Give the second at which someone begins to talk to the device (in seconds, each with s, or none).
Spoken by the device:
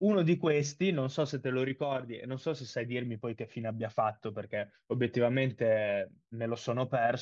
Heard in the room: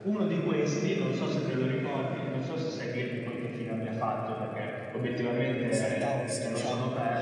5.7 s